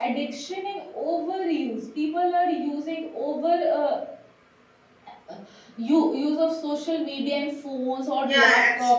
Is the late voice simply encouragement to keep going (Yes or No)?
No